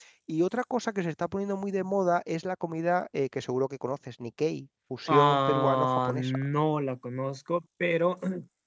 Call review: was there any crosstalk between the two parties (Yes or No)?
Yes